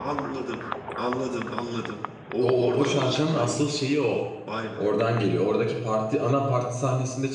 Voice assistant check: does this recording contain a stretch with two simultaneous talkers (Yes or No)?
Yes